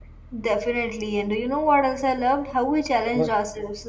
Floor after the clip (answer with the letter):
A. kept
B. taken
A